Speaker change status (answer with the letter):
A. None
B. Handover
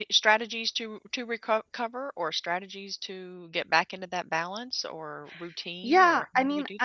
B